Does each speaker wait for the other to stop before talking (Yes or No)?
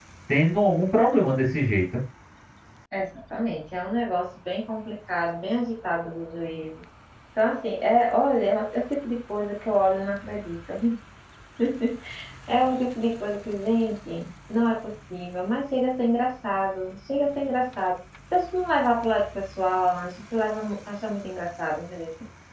Yes